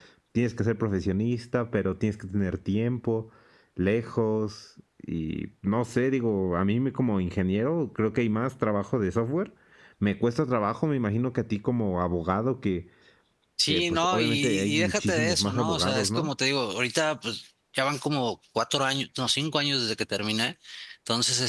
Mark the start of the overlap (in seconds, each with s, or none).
13.7 s